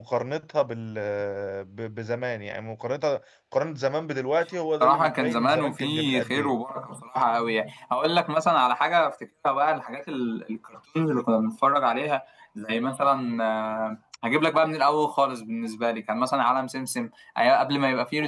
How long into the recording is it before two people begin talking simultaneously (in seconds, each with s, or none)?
4.8 s